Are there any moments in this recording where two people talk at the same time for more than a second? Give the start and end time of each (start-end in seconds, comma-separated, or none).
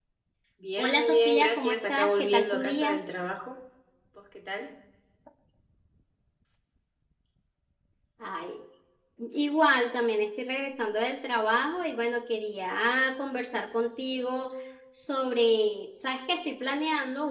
0.8-3.0